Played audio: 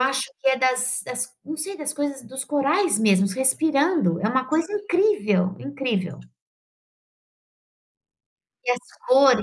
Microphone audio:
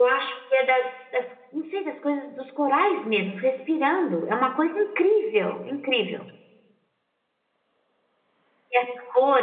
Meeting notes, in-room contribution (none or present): none